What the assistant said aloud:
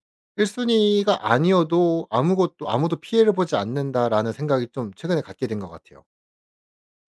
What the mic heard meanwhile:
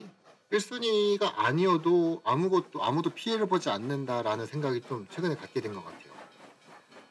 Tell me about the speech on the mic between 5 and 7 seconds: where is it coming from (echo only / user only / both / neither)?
echo only